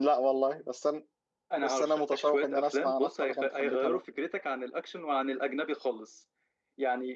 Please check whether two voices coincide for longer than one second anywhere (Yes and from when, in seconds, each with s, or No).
Yes, from 1.6 s